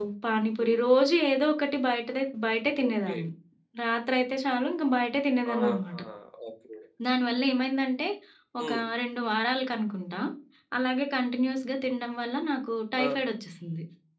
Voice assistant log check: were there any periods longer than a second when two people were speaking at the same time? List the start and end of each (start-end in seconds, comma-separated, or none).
none